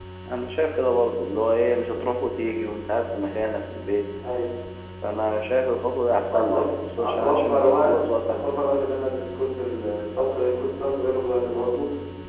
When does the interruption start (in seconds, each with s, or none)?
6.3 s